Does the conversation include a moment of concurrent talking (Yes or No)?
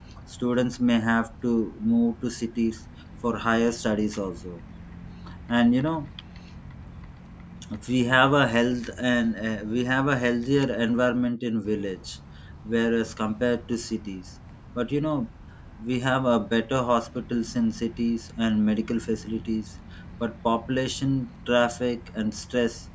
No